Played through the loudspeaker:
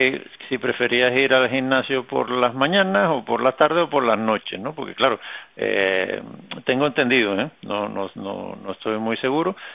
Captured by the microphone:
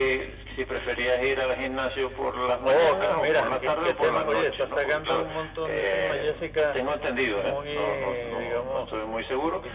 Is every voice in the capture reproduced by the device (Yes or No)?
No